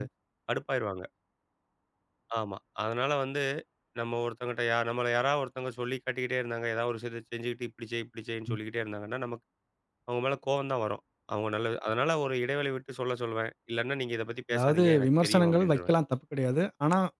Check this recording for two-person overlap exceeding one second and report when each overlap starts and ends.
14.5-15.9

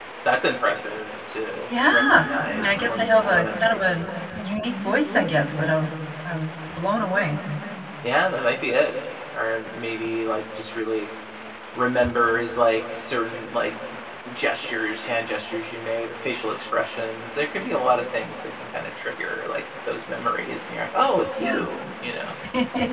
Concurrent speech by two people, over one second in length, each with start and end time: 1.7-4.1

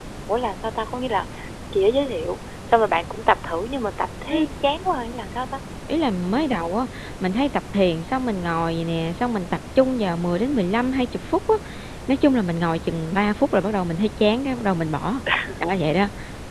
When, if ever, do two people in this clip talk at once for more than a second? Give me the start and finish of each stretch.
none

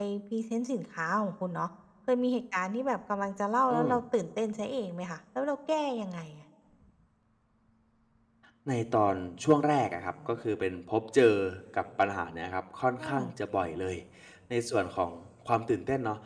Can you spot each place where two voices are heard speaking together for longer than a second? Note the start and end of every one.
none

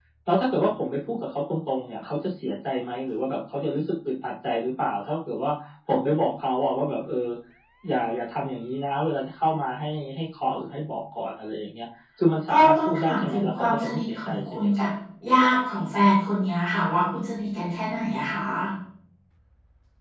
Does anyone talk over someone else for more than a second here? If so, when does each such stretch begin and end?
12.5-14.9

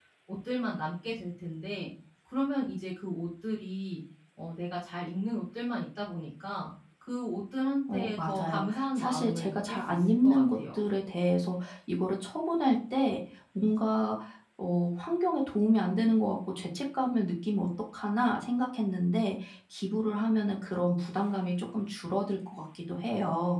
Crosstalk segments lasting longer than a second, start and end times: 7.9-10.6

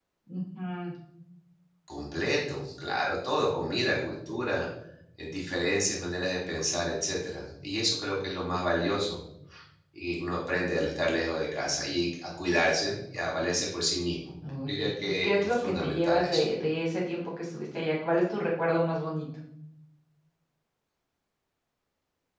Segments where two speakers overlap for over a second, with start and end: 14.5-16.4

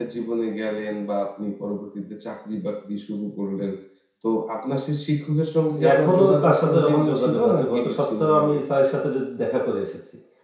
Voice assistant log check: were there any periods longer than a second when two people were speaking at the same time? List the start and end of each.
5.9-8.6

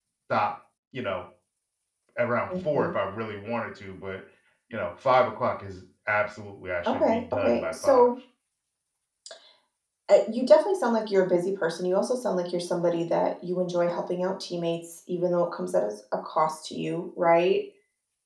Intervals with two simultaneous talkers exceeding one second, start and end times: 6.9-8.1

